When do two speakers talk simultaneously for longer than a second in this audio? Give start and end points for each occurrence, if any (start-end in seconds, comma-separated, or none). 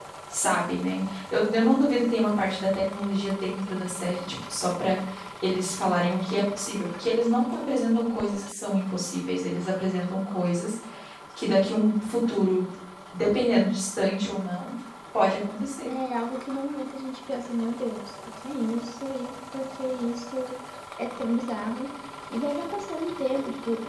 none